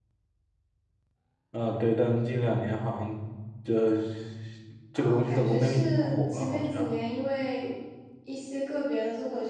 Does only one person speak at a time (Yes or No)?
No